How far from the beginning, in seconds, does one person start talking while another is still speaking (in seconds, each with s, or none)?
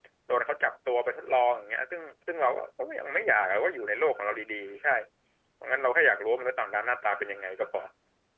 none